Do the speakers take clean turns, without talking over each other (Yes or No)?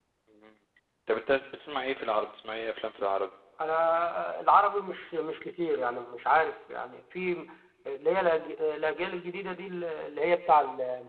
Yes